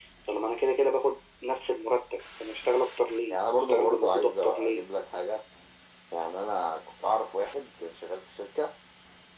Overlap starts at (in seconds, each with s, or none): 3.3 s